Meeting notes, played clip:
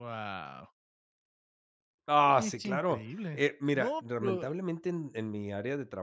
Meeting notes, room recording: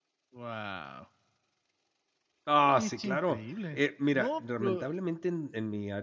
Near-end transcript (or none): none